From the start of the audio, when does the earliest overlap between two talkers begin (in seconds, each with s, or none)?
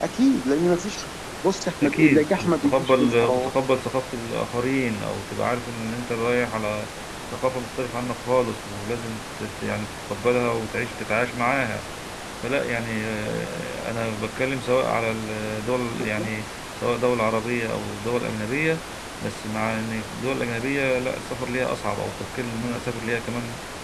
1.8 s